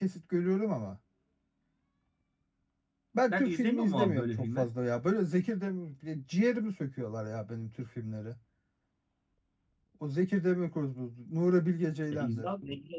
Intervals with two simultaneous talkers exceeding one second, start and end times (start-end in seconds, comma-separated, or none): 3.3-4.7